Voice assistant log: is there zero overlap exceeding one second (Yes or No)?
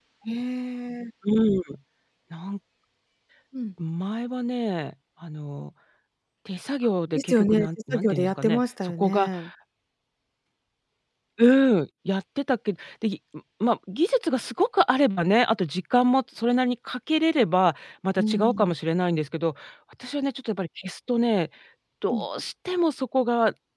No